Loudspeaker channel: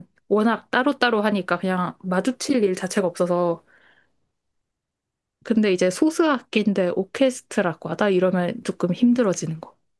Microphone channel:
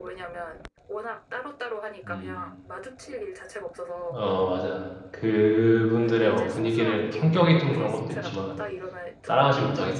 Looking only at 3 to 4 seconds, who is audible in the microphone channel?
echo only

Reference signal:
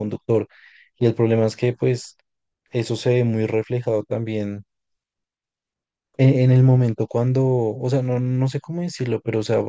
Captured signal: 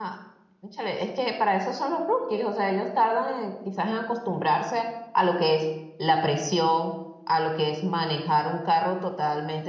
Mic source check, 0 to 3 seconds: user only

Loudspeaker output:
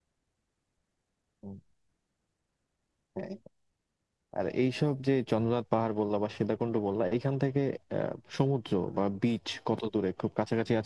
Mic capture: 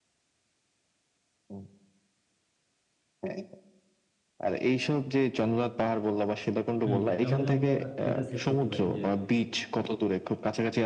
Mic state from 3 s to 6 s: echo only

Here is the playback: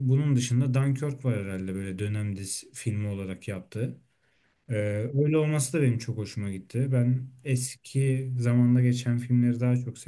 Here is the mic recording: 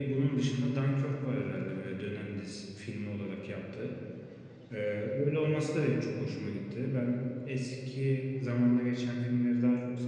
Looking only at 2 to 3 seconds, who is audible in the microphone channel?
echo only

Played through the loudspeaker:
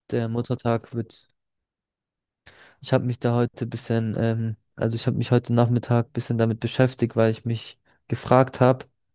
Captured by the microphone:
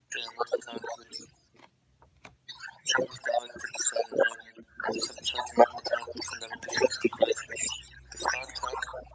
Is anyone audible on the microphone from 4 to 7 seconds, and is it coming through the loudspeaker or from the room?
echo only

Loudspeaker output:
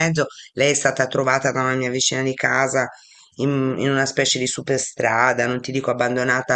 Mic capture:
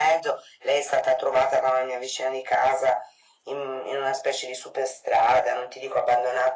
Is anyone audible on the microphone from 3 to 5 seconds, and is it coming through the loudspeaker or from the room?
echo only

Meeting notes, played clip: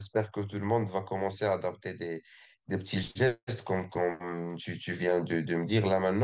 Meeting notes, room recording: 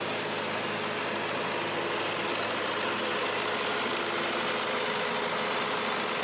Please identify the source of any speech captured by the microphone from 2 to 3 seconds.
neither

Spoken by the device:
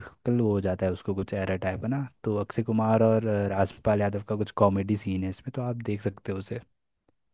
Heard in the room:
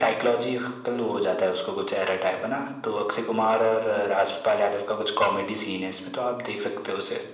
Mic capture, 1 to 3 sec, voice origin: echo only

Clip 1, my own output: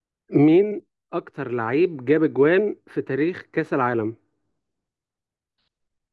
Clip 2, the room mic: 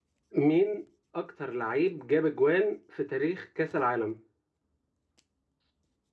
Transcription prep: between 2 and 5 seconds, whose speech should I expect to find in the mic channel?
echo only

